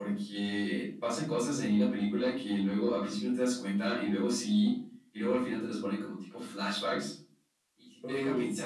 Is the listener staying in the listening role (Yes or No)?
Yes